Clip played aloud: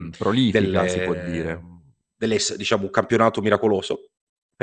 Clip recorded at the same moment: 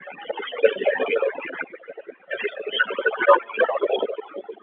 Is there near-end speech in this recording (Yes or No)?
No